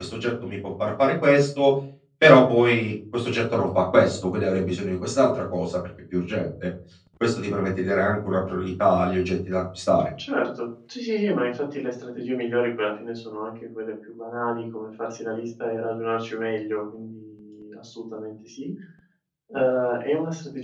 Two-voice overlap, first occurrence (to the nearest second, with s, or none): none